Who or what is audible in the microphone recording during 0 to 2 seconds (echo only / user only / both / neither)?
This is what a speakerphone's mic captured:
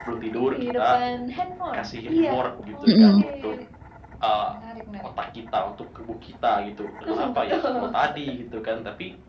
echo only